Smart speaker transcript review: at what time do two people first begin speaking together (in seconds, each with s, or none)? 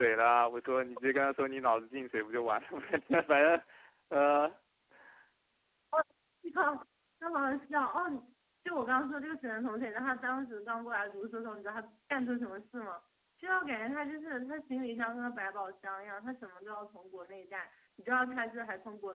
none